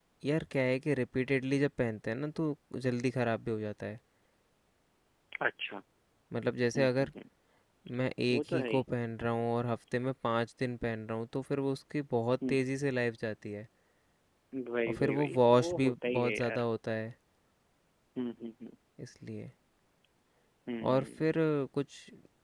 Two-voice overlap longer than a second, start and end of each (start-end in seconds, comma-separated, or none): 14.9-16.6